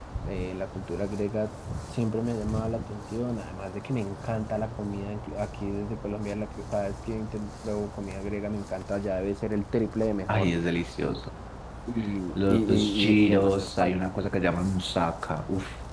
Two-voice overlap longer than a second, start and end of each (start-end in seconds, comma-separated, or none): 12.3-14.1